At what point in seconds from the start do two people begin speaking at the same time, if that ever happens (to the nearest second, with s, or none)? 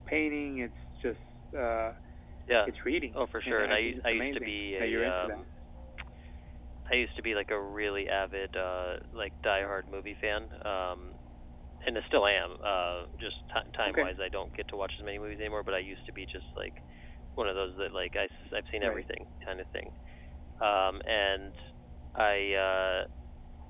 3 s